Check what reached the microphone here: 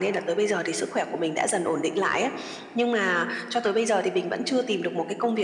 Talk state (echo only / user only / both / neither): echo only